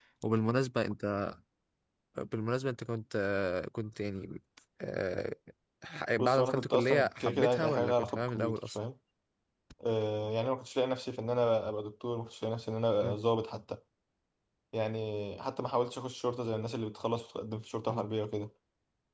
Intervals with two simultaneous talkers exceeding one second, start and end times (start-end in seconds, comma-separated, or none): 6.2-8.8